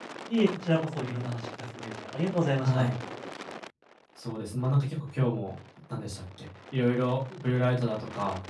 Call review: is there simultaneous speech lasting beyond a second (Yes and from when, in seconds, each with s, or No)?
No